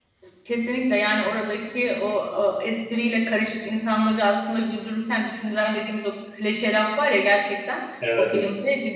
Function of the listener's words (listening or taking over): listening